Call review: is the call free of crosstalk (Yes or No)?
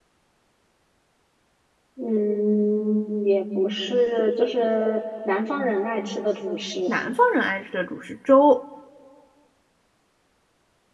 Yes